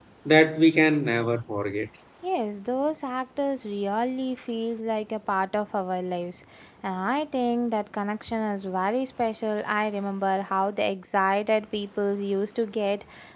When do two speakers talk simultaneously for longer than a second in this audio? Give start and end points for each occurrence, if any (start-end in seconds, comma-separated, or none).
none